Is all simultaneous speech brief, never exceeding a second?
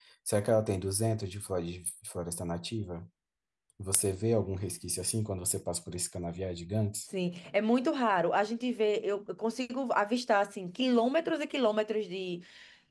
Yes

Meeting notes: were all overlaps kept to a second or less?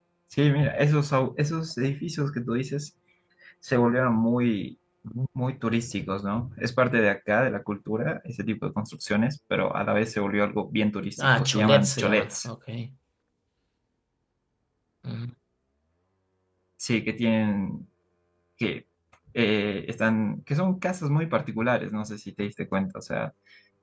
No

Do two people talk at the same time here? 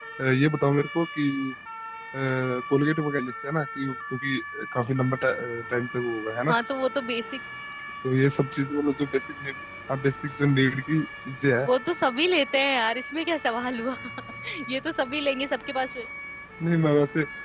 No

